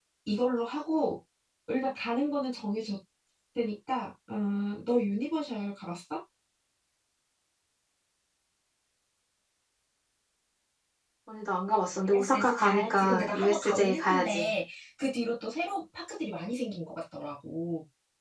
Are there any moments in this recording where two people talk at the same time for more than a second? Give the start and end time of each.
12.1-14.5

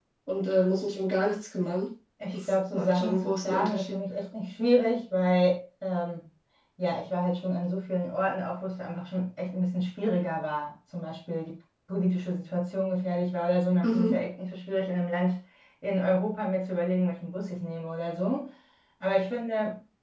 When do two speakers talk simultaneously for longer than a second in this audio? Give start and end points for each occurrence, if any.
2.3-4.0

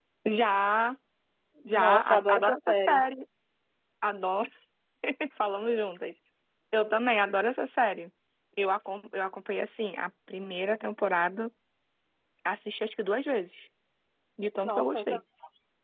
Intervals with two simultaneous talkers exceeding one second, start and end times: 1.7-3.0

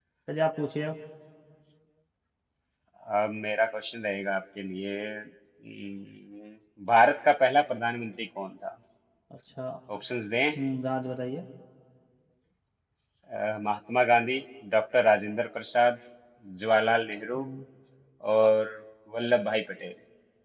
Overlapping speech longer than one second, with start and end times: none

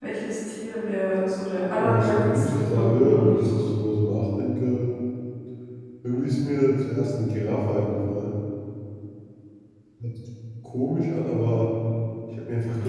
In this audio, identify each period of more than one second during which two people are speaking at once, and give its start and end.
1.8-3.6

